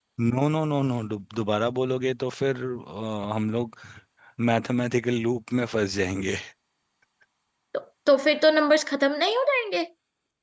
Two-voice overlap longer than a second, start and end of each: none

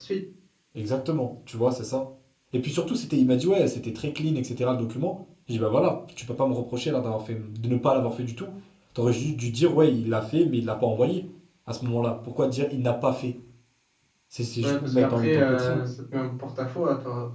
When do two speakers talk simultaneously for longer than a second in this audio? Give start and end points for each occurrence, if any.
14.6-15.8

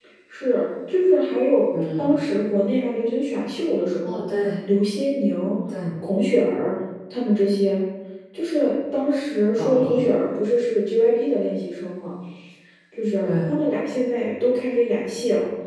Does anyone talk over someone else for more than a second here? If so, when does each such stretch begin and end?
none

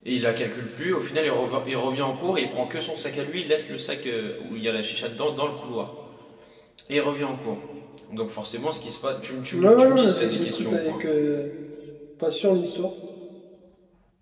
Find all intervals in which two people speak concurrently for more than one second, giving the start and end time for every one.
9.5-11.0

